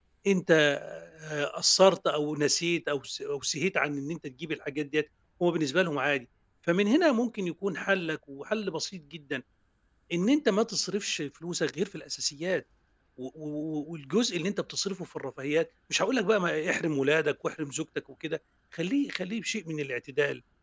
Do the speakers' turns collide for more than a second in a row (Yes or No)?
No